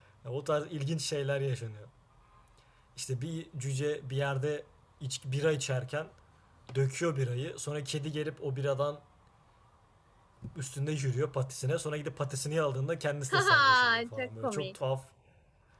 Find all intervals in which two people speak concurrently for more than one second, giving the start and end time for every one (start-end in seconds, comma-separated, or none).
13.3-14.7